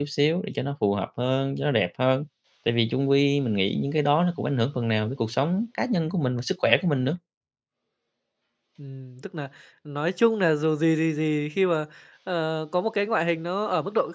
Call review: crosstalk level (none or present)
none